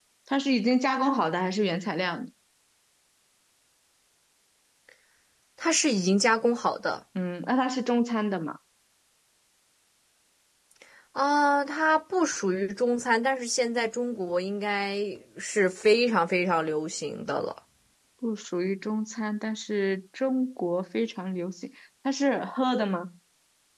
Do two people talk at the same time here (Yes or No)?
No